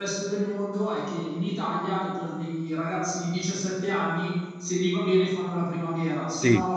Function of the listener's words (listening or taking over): listening